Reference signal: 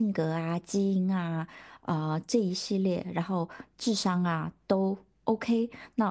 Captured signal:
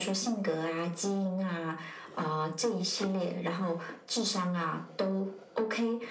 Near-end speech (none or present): none